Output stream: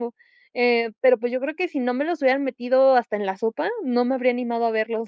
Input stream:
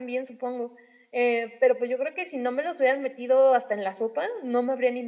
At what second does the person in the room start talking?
none

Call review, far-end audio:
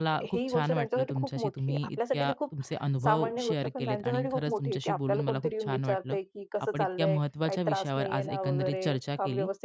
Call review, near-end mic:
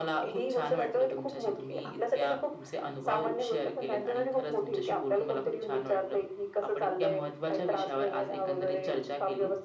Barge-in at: none

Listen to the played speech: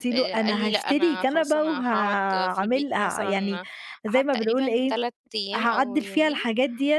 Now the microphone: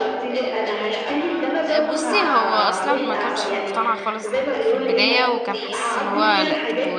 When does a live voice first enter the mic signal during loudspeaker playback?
1.6 s

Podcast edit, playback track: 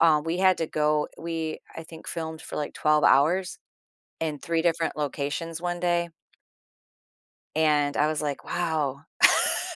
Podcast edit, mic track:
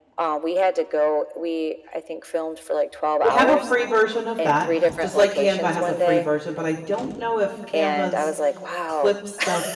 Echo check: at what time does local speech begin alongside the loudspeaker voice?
3.2 s

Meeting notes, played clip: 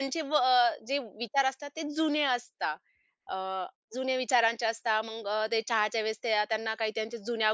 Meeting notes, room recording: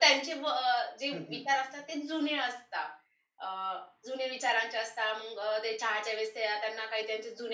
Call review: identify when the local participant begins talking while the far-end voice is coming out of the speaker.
1.1 s

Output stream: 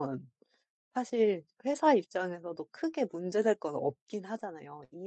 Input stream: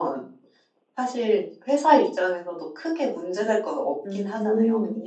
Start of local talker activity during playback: 4.0 s

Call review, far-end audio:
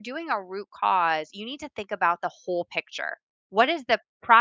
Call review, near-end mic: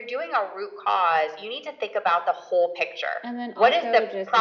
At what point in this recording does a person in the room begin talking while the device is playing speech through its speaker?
3.2 s

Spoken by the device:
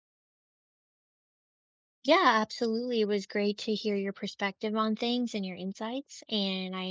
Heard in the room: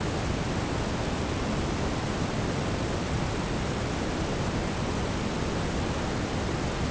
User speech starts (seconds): none

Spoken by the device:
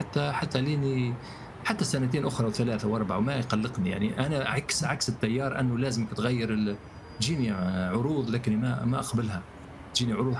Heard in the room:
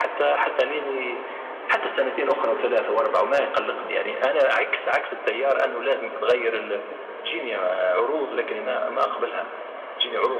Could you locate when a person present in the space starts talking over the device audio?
none

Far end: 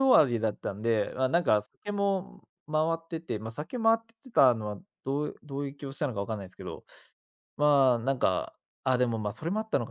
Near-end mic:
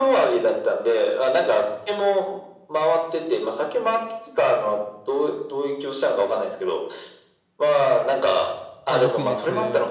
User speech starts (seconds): 8.9 s

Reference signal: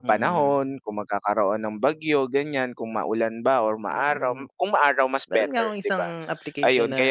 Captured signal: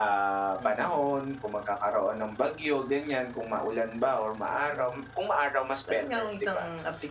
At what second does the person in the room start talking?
none

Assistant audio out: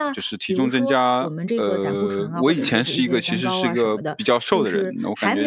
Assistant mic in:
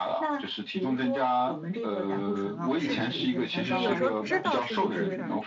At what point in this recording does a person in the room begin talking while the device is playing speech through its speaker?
2.8 s

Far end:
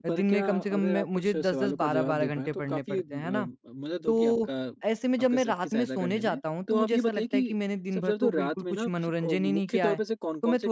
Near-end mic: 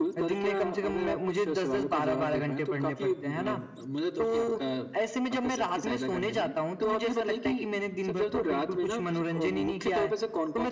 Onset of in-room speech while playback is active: none

